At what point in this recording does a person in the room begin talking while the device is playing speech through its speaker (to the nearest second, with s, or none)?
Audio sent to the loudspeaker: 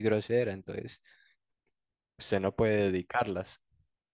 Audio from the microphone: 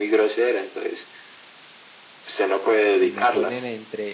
3 s